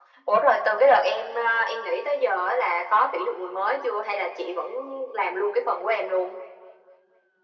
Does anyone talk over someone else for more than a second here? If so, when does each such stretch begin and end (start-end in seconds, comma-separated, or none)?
none